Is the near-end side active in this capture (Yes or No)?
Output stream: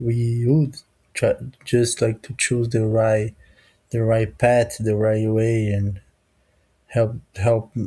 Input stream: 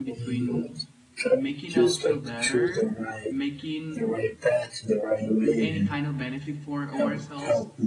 Yes